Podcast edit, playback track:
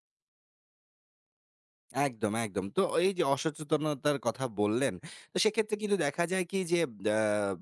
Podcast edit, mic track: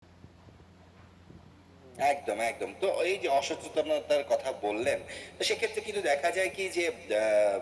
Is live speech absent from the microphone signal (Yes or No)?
Yes